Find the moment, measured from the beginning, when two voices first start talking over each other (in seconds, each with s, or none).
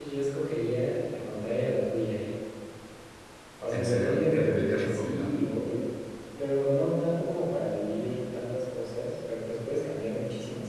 3.8 s